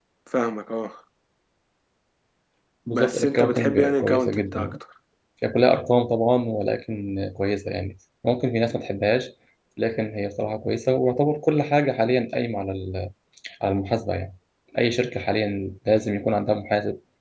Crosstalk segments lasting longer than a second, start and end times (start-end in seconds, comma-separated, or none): 2.9-4.8